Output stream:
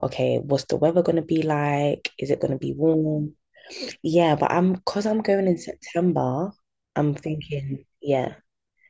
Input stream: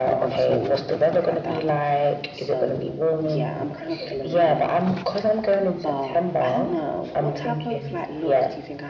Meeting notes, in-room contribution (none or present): present